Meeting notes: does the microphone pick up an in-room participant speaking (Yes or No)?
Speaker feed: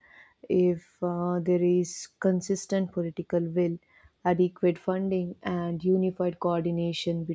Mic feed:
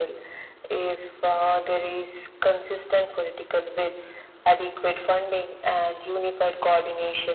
No